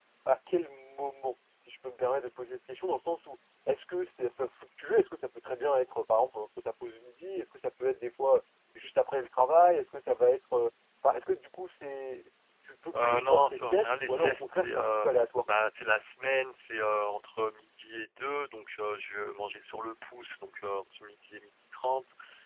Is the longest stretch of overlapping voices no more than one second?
No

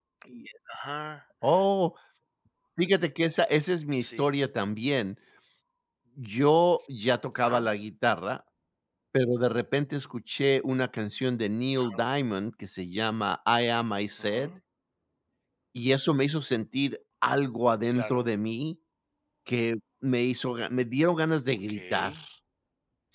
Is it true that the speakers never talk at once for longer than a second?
Yes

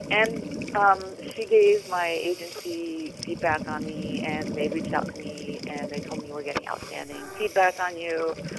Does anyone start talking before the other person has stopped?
No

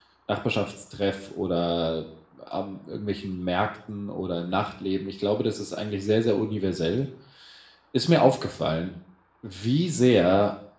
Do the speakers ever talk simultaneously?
No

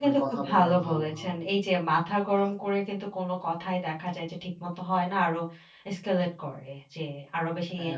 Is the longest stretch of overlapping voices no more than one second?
No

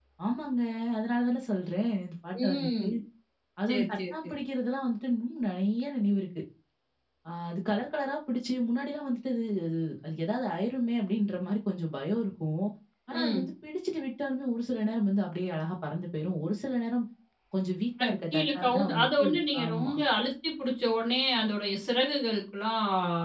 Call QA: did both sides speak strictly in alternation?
No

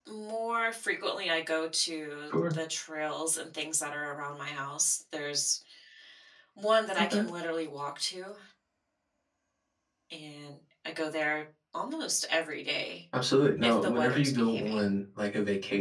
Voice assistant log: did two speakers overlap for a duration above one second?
Yes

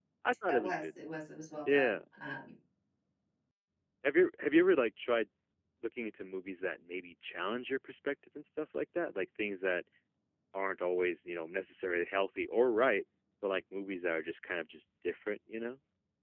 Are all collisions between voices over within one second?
Yes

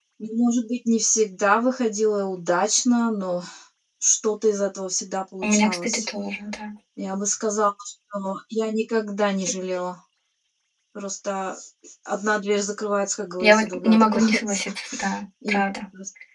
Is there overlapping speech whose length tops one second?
Yes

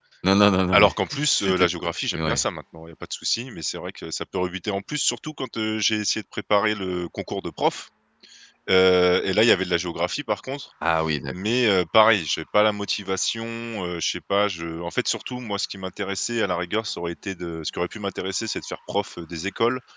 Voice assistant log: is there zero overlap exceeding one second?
Yes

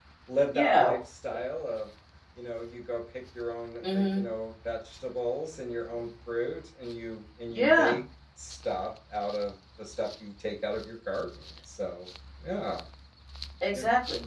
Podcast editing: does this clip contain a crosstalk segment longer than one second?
No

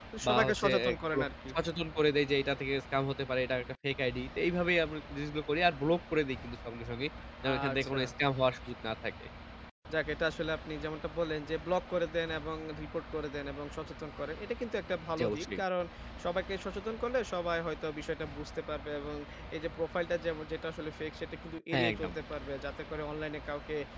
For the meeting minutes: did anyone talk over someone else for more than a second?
Yes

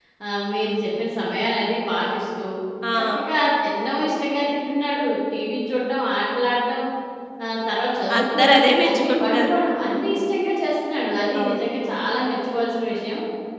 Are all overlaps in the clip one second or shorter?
No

